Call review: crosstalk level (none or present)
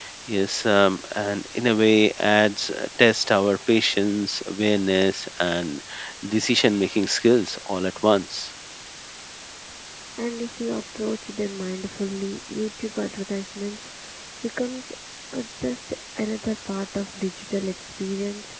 none